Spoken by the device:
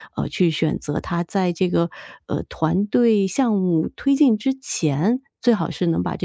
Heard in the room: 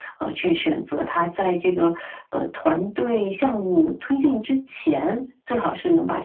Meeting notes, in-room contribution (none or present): none